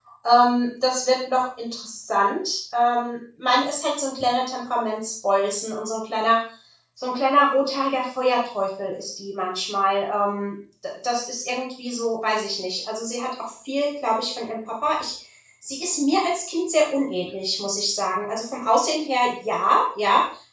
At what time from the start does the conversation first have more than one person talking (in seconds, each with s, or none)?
none